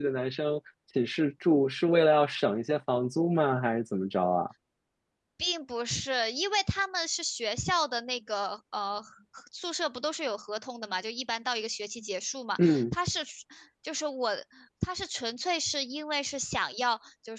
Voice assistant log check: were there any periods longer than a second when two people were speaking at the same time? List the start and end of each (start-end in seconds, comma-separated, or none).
none